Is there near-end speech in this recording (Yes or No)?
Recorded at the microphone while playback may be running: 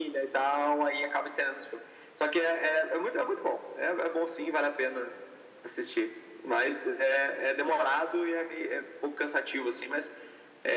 Yes